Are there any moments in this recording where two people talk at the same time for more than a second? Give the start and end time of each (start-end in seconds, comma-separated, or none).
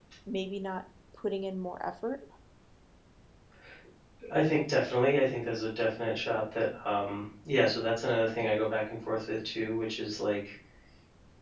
none